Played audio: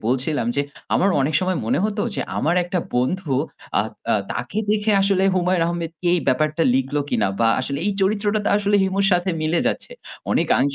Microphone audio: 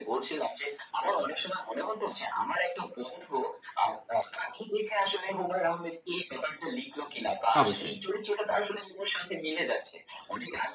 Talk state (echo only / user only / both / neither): both